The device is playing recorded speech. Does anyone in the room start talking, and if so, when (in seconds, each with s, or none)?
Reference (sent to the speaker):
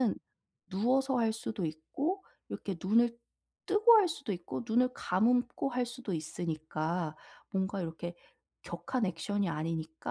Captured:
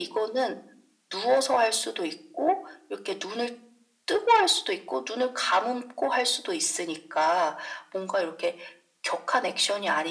none